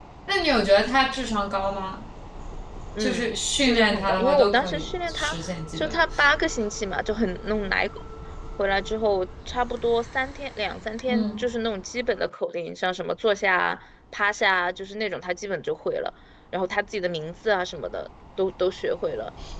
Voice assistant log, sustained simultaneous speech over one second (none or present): present